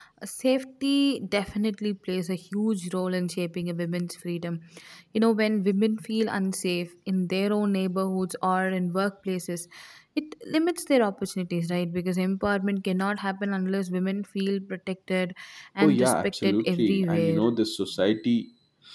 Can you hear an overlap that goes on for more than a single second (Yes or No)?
Yes